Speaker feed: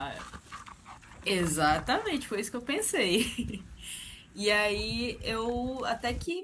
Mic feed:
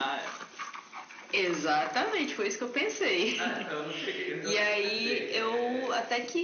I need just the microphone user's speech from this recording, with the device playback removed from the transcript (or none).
Ah, então, eu não cheguei, eu ainda não comecei. É,